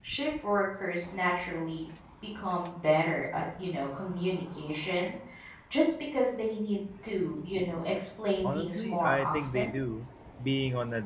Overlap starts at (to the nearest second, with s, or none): 8 s